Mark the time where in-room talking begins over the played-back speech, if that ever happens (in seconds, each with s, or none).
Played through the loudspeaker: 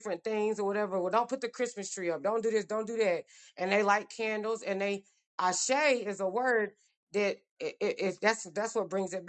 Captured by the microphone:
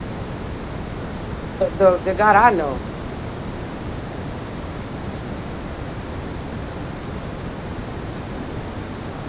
1.6 s